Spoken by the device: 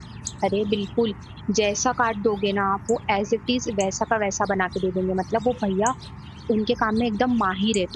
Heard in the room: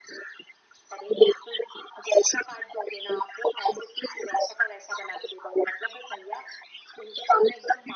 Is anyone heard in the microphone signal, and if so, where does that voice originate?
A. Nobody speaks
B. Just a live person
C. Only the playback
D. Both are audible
C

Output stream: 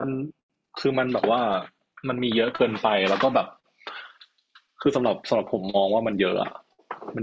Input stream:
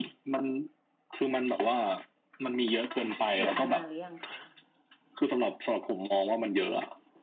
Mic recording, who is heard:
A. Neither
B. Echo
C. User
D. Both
D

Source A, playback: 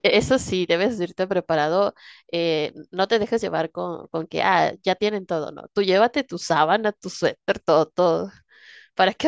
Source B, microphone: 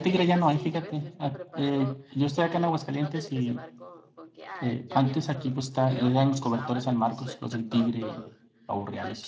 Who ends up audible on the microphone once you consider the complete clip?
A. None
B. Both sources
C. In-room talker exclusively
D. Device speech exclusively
B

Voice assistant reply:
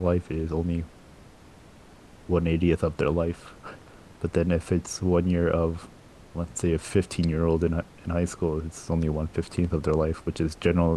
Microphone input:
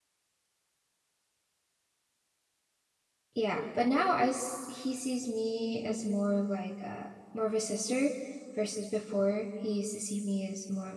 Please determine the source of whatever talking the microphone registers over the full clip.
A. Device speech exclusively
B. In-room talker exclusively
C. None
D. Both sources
B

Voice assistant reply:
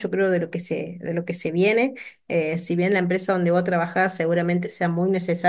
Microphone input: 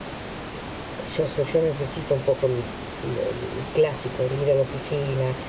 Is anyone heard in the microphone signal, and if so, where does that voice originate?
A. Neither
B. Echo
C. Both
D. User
D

